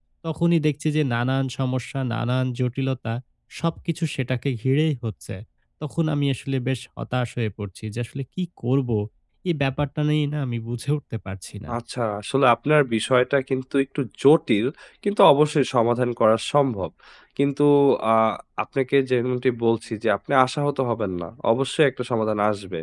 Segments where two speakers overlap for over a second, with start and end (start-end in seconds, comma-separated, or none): none